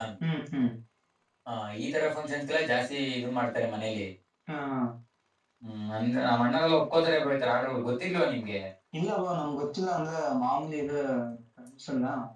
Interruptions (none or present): none